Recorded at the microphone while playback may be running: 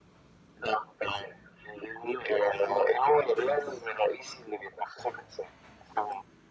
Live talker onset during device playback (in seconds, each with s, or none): none